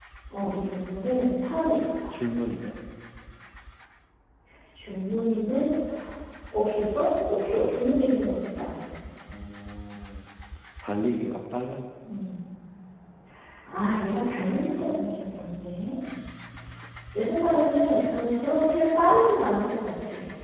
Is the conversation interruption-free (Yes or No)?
Yes